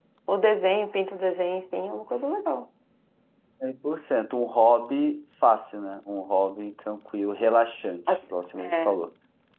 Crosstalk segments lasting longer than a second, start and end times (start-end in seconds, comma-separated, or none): none